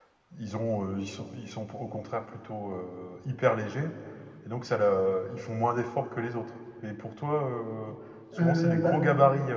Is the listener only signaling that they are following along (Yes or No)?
Yes